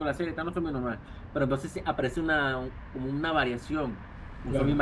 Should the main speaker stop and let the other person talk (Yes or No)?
No